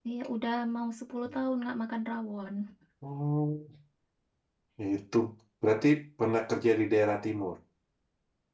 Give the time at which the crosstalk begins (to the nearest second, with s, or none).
none